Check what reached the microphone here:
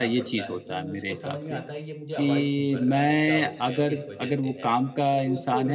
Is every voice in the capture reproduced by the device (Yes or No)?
No